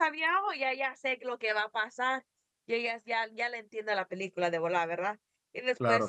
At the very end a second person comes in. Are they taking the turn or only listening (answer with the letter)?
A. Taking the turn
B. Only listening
B